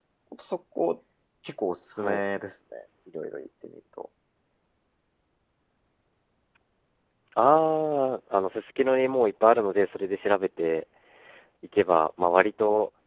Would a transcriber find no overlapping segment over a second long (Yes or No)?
Yes